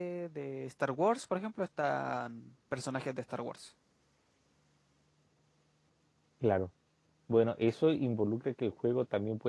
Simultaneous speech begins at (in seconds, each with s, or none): none